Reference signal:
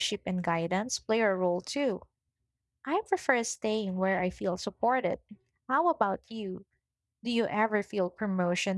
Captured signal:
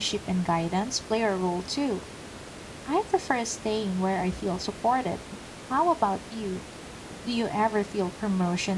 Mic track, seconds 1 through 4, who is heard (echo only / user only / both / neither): echo only